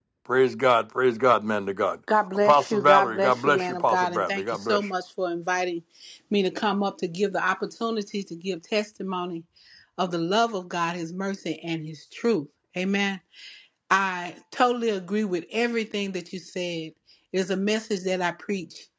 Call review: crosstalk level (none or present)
present